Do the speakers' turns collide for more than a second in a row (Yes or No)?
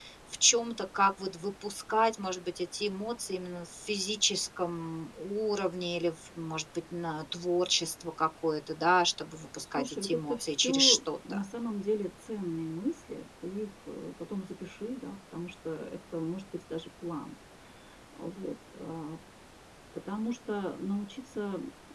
Yes